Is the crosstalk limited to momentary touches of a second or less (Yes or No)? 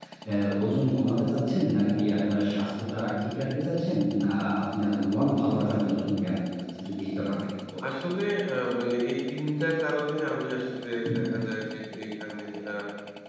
Yes